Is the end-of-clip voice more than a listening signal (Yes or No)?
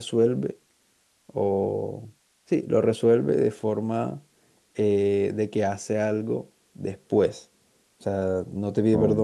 No